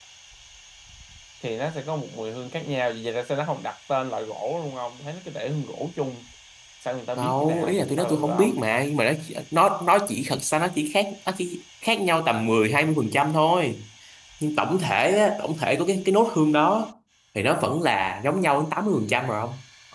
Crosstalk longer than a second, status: present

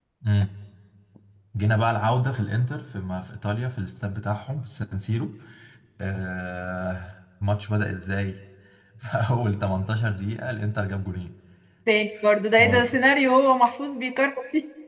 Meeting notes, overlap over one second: none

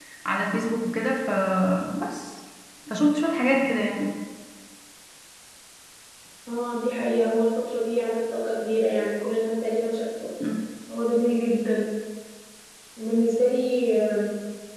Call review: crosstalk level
none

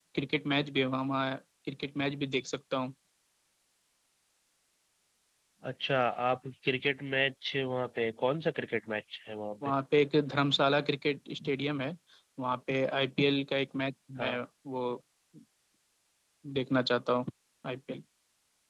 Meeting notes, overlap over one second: none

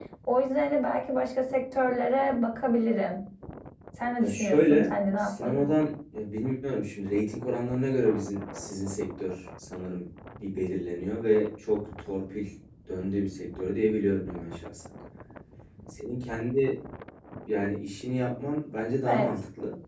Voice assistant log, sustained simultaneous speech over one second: present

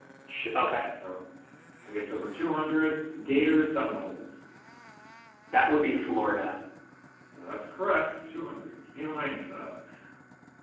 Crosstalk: none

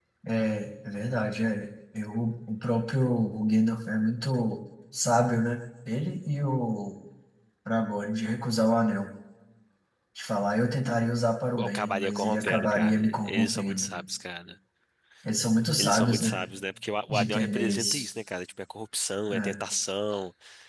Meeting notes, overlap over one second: present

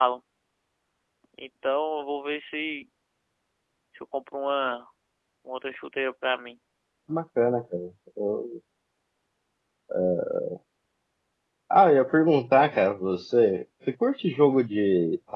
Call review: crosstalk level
none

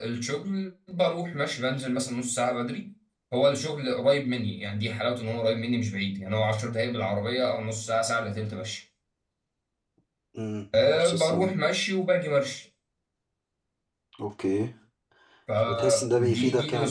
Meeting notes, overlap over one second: present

